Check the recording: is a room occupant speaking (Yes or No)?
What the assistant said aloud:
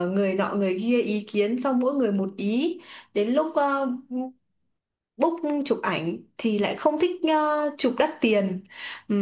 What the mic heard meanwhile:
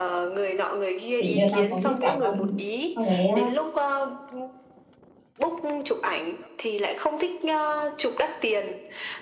Yes